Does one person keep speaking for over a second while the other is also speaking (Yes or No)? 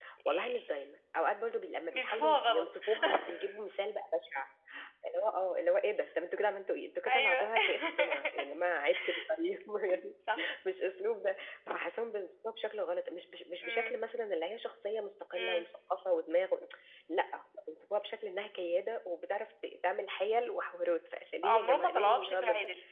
Yes